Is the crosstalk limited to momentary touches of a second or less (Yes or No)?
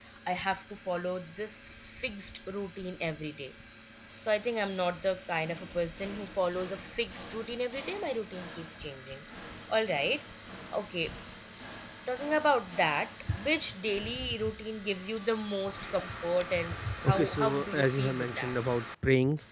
No